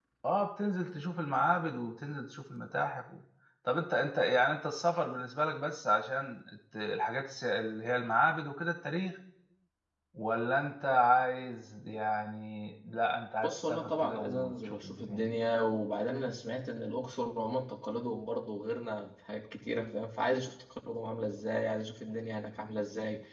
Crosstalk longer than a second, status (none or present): present